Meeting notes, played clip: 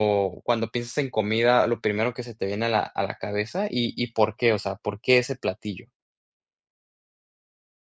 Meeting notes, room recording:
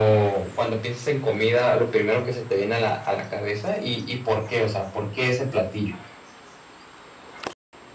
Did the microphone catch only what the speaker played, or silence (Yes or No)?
Yes